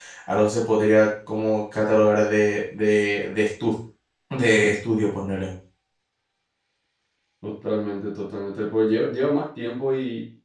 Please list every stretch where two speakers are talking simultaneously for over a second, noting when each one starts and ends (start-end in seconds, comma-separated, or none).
none